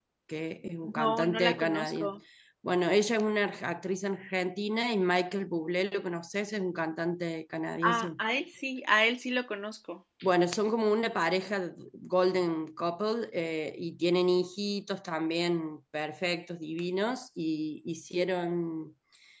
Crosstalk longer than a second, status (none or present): present